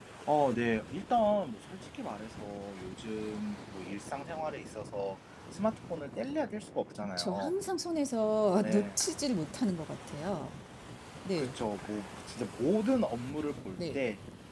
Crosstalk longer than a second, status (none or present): none